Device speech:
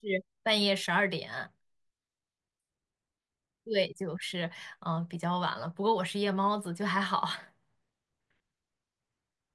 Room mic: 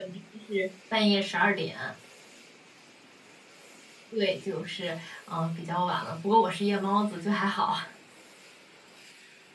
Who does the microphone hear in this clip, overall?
echo only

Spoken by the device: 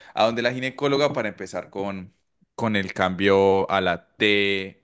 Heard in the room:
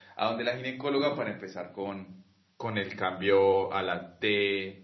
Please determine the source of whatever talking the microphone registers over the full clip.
echo only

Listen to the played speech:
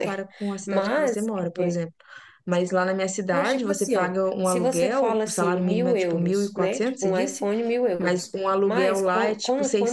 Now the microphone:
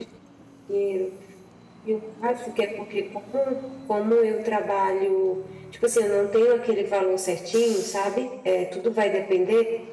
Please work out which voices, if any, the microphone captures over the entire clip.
user only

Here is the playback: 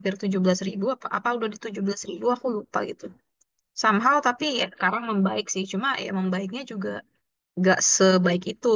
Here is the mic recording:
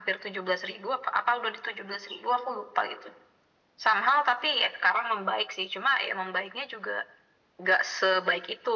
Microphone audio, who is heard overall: echo only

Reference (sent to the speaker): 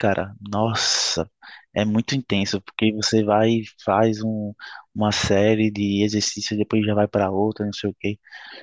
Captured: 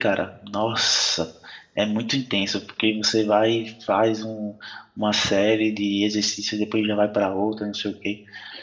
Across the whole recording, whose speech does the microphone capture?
echo only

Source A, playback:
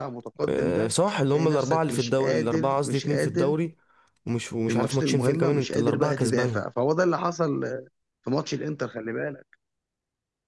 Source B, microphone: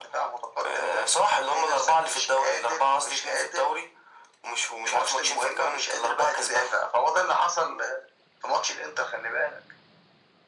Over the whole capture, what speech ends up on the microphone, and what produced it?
echo only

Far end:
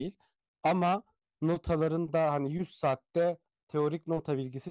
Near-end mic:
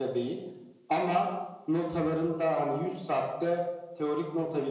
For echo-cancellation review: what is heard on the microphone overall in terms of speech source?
echo only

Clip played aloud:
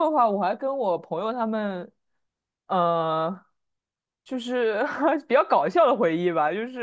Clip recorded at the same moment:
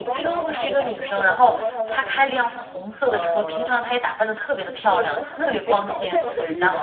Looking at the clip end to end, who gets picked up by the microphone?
both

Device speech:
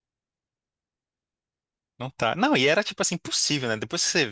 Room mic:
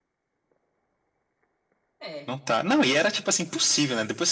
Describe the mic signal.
both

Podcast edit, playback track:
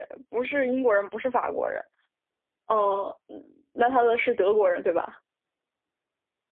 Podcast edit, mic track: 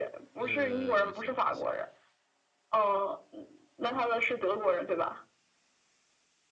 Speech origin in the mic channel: both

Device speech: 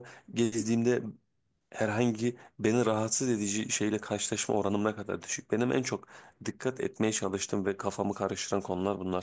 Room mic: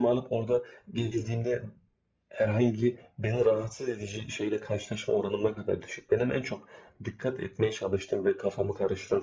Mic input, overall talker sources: echo only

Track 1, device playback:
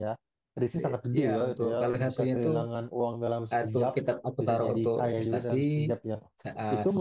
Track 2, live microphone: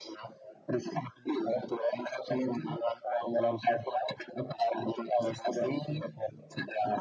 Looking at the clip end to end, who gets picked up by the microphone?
echo only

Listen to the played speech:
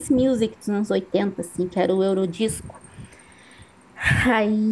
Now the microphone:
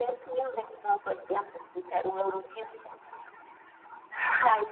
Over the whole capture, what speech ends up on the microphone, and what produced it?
echo only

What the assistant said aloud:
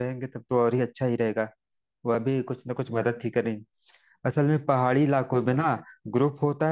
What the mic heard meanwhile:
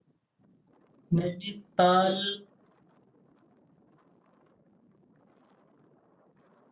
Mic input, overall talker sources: user only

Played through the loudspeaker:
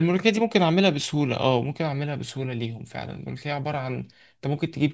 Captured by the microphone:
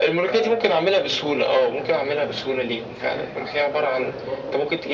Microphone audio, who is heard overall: both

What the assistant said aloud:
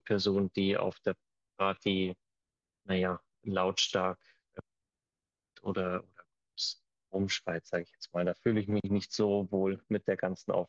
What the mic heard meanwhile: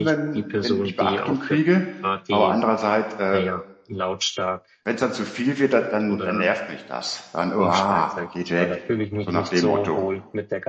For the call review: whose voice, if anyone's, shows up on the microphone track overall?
both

